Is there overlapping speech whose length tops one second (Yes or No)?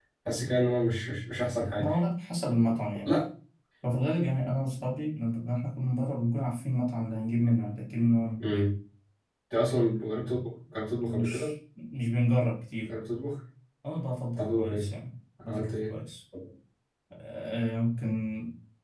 No